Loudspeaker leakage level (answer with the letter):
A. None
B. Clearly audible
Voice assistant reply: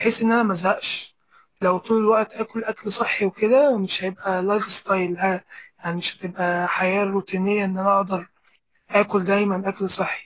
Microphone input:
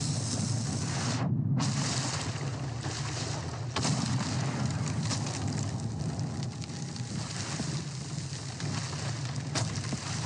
A